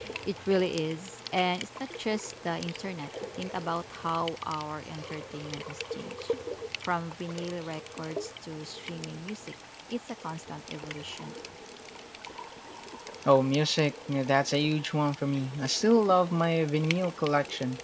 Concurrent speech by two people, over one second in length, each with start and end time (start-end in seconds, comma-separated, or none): none